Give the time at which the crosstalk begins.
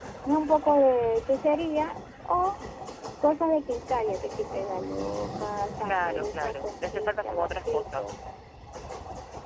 5.8 s

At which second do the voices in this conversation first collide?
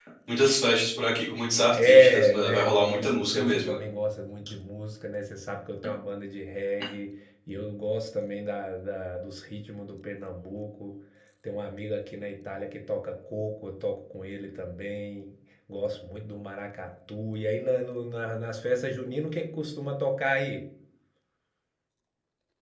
1.7 s

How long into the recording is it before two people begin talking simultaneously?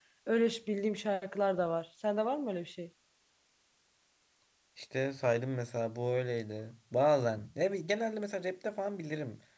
none

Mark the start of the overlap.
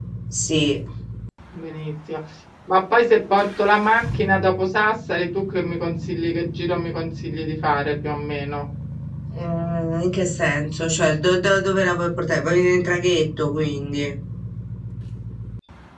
none

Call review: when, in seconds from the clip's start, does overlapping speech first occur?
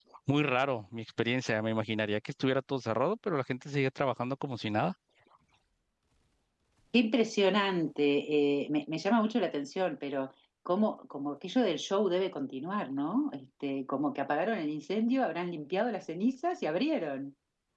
none

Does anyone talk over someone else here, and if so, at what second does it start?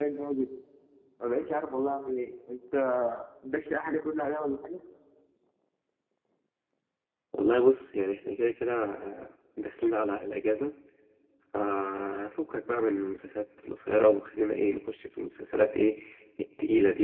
none

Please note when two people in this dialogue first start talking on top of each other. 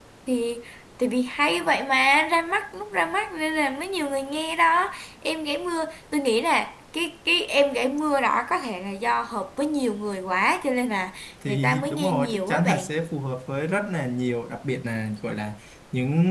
11.4 s

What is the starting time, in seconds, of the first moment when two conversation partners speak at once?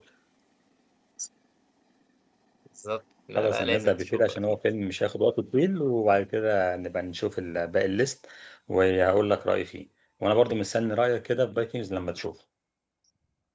3.4 s

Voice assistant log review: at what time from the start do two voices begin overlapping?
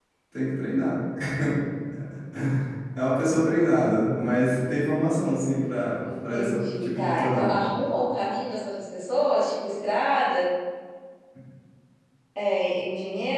6.3 s

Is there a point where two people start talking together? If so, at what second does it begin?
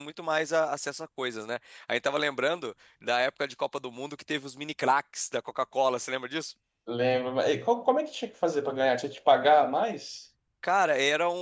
none

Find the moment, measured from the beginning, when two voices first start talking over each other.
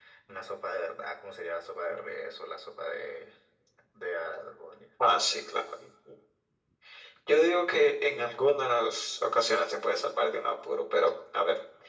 none

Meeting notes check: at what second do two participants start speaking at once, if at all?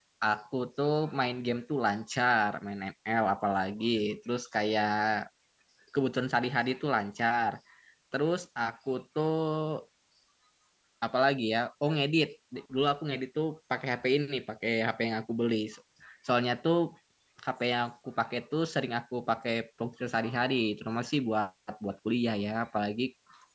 none

